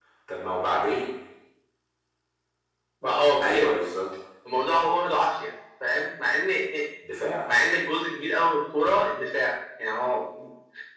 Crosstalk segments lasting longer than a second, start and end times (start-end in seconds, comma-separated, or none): none